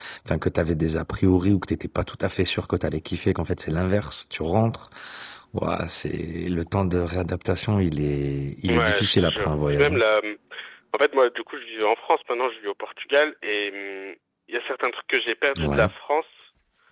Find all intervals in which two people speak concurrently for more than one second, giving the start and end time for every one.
8.7-10.0

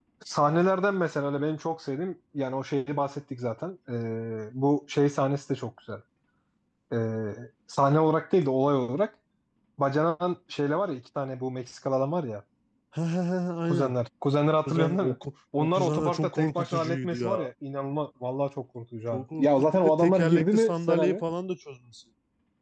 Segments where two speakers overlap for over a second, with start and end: 15.6-17.4, 19.1-21.2

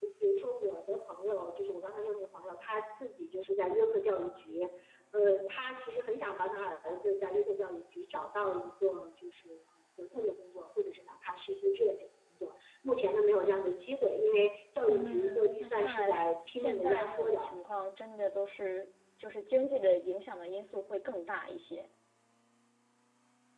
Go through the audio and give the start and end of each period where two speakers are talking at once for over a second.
14.9-17.5

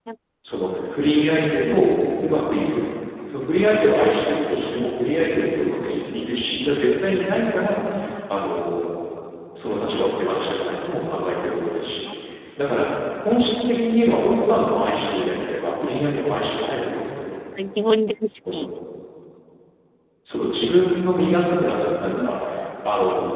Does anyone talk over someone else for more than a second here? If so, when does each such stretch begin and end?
none

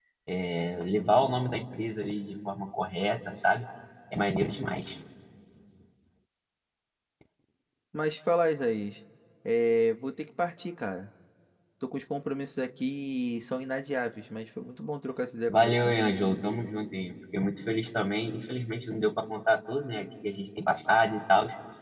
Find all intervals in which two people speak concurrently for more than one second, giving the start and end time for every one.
none

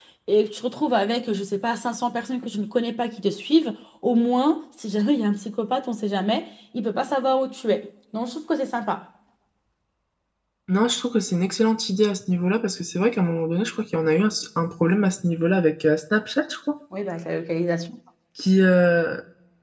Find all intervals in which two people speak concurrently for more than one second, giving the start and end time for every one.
none

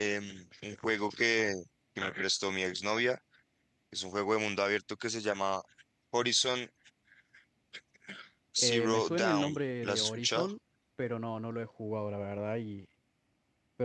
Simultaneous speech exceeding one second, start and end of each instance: 8.6-10.4

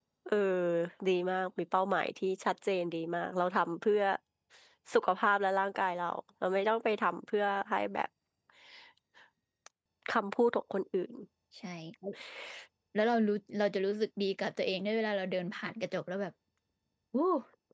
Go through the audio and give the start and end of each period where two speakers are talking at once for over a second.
none

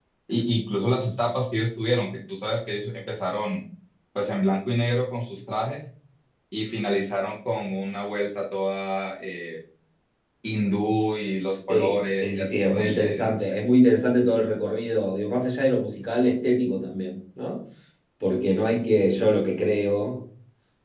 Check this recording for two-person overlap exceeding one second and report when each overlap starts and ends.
11.7-13.4

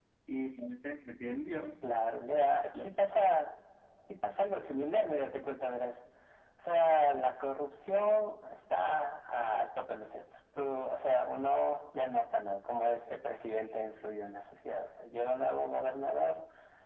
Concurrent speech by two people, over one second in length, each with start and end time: none

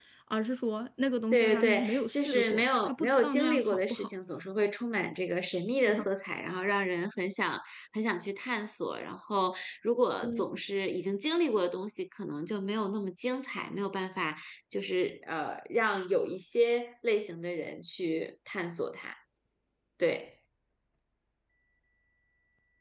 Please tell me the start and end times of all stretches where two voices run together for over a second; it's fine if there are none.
1.3-4.1

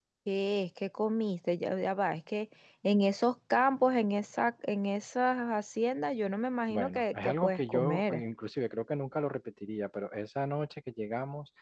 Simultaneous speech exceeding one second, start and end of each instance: 6.7-8.2

